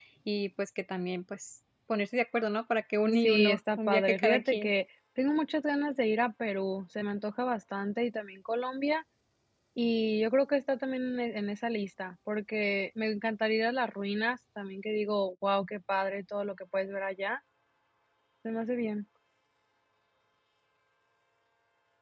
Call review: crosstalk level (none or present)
present